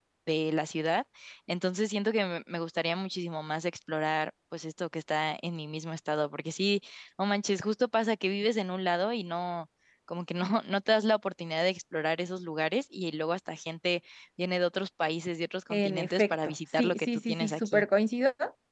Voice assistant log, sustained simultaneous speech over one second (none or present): present